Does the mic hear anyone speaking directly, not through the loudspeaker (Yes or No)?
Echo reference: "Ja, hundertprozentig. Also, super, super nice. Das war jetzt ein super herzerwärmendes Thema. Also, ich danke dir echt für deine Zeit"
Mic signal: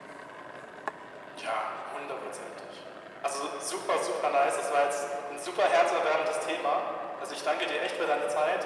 No